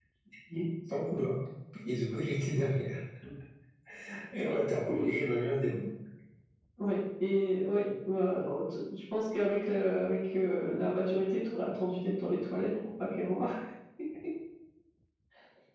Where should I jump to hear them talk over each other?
none

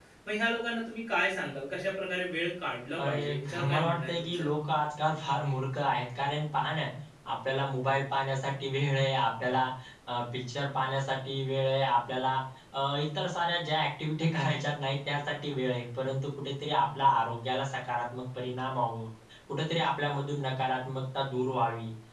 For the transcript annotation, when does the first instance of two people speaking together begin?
3 s

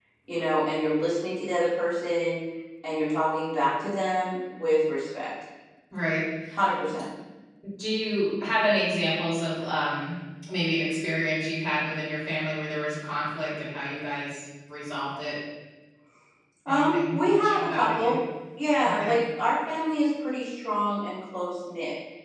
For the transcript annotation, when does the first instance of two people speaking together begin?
17 s

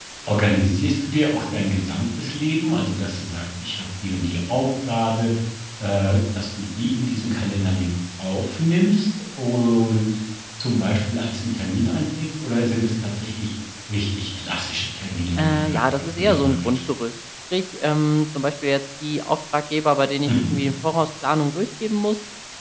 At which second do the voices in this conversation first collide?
15 s

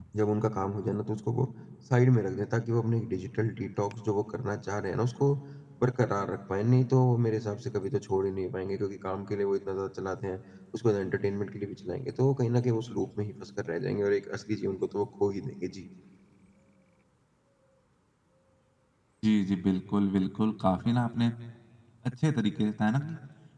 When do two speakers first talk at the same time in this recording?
none

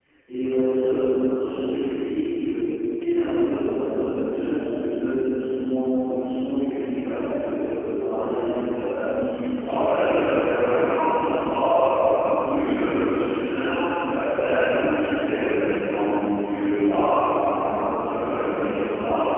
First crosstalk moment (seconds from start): 10 s

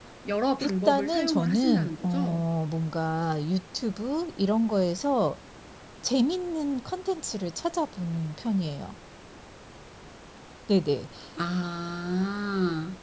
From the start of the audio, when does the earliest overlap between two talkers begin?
1 s

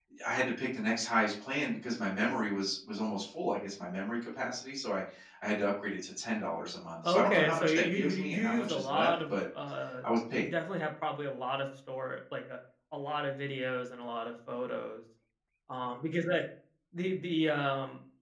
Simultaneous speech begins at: 7 s

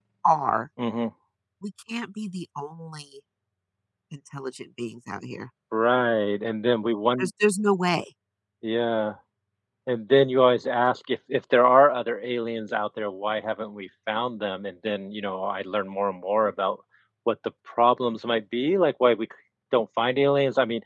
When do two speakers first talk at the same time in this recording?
none

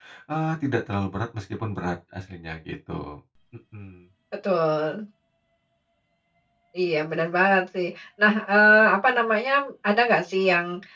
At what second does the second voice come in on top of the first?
none

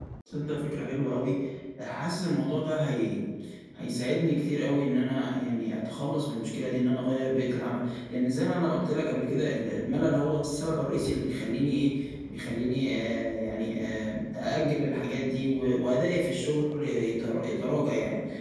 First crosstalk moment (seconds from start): none

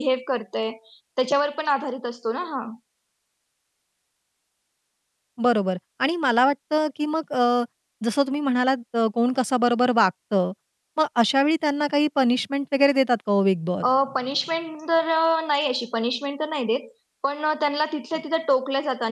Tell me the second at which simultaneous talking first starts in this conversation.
none

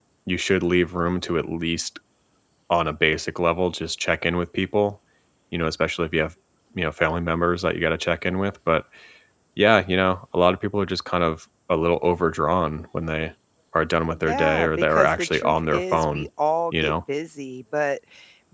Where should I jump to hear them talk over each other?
14 s

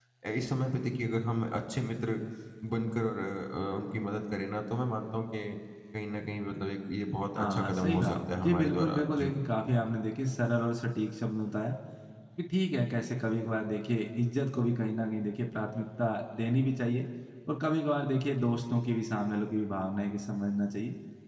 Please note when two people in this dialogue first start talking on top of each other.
7 s

